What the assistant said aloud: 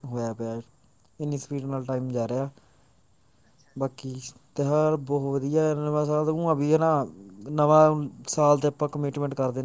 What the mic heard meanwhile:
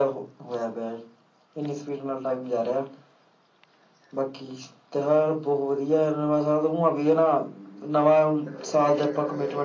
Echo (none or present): present